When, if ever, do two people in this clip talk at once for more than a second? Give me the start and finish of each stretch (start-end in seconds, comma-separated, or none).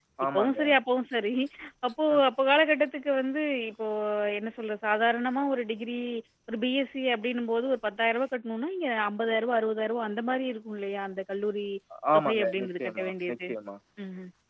12.2-13.4